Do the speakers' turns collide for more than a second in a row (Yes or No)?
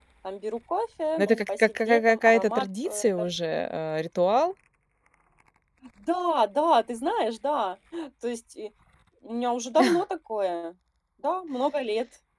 Yes